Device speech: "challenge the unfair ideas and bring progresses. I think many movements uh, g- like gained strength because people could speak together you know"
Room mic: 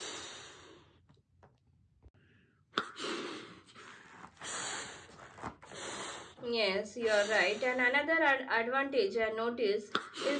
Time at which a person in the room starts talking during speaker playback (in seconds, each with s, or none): 6.4 s